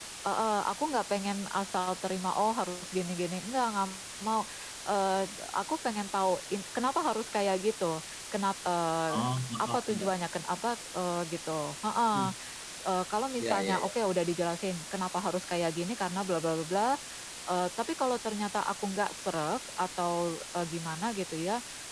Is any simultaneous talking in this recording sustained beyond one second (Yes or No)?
No